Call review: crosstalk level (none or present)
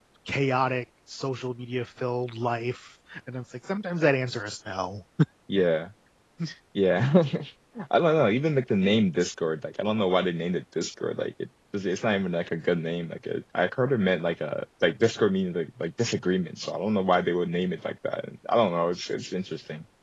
none